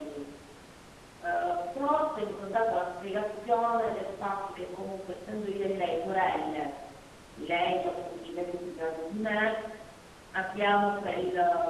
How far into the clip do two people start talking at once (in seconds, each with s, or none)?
none